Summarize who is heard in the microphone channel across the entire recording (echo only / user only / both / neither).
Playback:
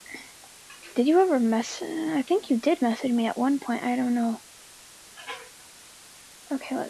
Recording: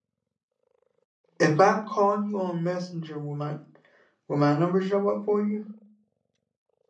user only